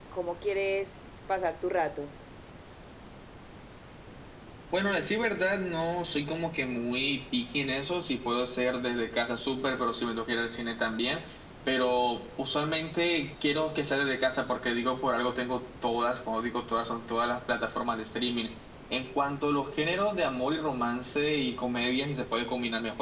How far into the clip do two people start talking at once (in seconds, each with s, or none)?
none